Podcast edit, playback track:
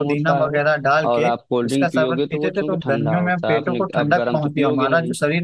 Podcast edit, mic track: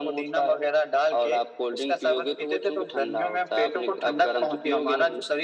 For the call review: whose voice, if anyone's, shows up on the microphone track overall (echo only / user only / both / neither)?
echo only